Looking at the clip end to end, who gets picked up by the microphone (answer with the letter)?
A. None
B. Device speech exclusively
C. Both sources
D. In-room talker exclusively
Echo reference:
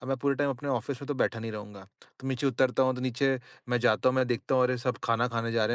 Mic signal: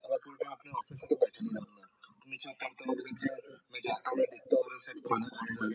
B